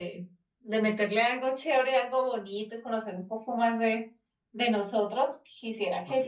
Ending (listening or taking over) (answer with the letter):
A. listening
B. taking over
A